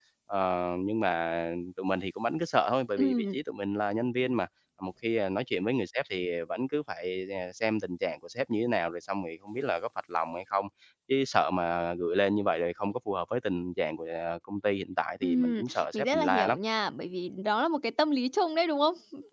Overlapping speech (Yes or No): Yes